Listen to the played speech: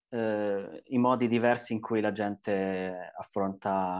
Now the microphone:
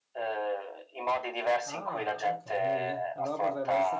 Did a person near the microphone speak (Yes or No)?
Yes